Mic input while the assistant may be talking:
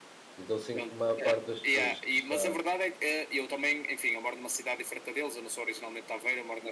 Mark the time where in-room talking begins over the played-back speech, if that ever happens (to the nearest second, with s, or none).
0 s